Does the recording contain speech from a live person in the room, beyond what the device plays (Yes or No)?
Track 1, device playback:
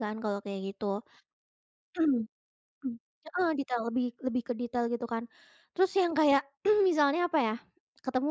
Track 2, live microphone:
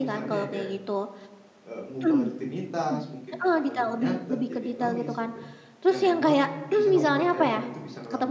Yes